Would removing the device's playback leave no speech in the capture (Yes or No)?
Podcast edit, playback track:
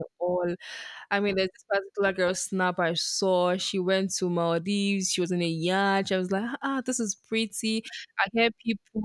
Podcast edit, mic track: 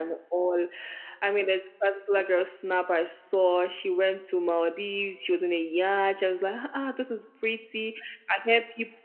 Yes